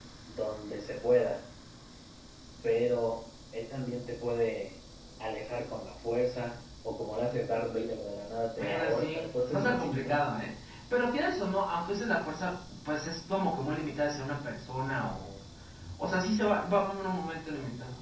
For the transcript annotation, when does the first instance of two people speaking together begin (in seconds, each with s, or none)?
8.6 s